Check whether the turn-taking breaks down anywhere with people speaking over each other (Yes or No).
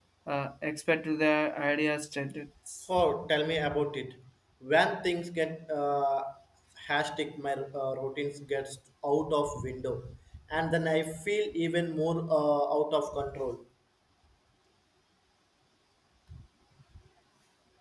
No